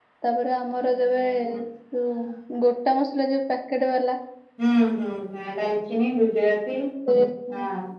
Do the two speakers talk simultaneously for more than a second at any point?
No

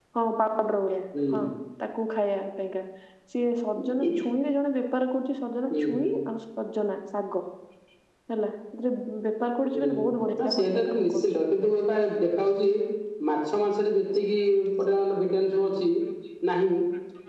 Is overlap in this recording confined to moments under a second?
No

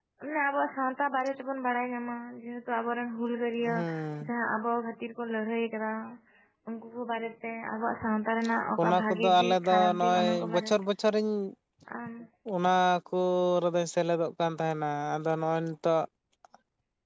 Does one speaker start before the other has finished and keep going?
Yes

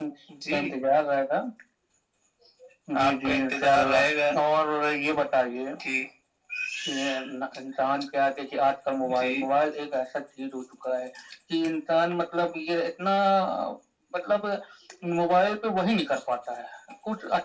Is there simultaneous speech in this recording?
Yes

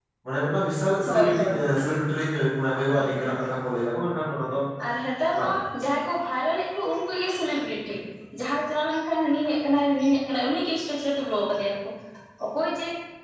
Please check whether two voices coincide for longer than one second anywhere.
No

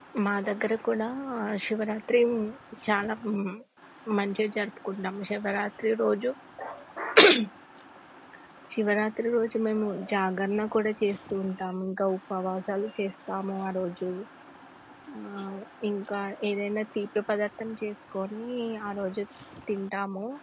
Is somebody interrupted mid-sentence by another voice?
No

